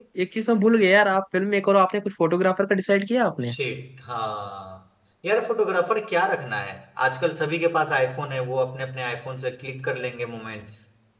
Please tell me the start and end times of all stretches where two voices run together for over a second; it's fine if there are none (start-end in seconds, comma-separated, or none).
none